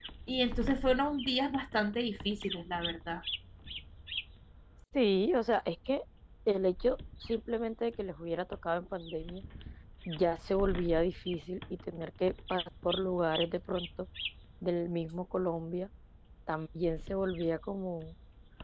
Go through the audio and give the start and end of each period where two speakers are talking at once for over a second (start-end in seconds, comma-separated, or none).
none